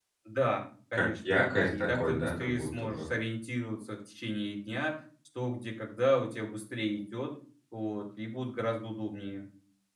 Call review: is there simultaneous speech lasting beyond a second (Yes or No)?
Yes